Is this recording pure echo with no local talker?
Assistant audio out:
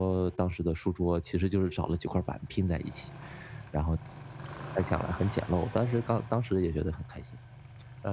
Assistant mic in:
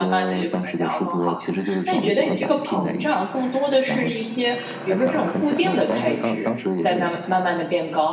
No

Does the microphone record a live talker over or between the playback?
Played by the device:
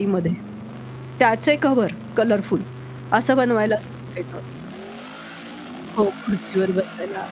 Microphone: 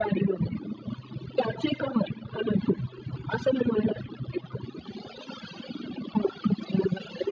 No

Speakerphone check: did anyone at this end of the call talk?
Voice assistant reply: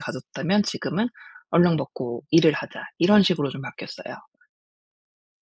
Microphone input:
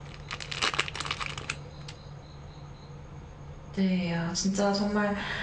Yes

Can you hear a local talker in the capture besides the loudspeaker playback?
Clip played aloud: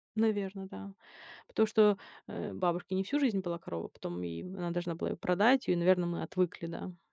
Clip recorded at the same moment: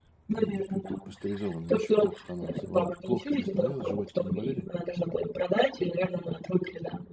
Yes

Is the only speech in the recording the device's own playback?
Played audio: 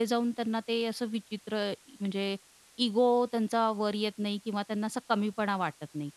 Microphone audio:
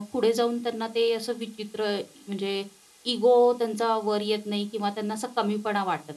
Yes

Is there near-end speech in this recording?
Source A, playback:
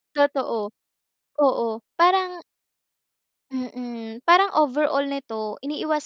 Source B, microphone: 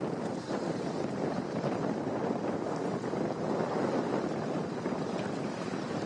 No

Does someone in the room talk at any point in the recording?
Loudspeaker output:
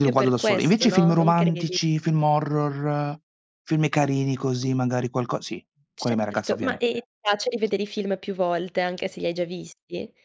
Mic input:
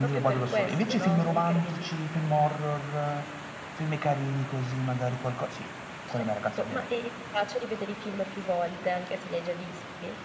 No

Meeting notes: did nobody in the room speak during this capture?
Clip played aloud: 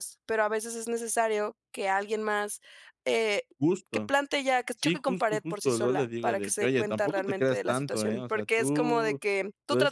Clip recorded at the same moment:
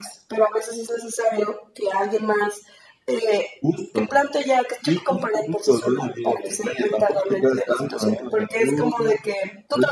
Yes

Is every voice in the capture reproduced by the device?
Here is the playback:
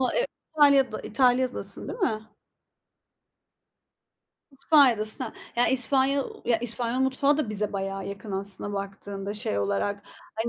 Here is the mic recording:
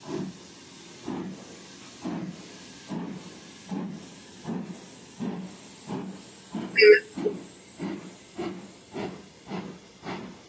No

